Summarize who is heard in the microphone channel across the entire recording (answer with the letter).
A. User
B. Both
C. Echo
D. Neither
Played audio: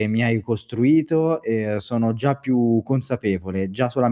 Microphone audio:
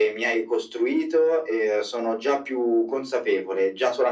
C